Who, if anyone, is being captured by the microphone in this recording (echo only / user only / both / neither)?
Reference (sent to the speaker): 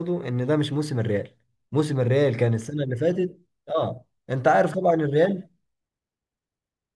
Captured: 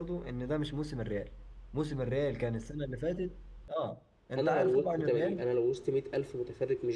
both